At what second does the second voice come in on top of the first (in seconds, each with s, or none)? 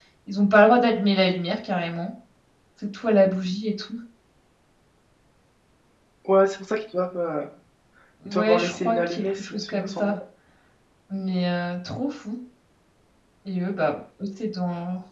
8.3 s